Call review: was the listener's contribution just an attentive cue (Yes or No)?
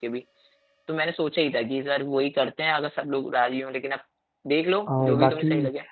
No